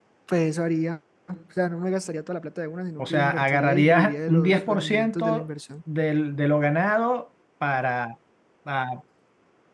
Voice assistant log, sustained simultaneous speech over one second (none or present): present